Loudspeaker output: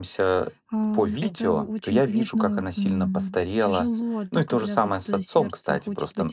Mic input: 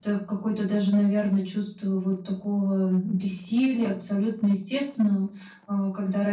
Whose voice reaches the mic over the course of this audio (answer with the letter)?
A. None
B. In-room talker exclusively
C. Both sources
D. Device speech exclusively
B